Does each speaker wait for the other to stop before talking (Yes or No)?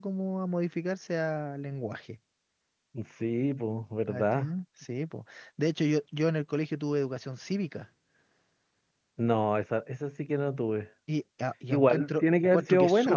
No